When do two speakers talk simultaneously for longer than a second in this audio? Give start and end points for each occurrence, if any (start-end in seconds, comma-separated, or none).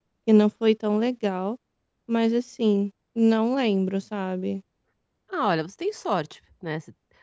none